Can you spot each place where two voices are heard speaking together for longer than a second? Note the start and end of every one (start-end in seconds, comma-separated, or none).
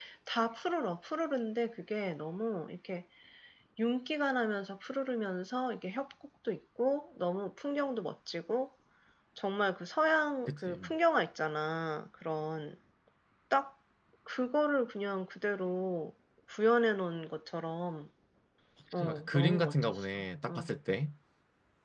19.0-20.7